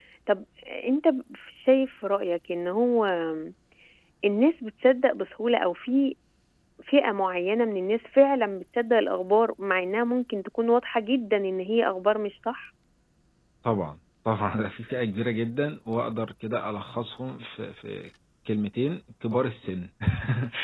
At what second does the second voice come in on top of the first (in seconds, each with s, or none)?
none